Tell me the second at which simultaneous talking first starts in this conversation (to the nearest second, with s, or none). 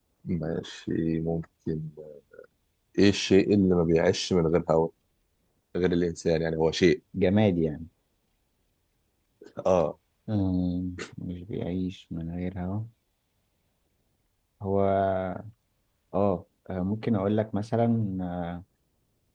none